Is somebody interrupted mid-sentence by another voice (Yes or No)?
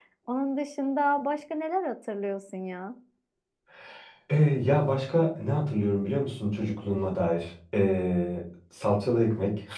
No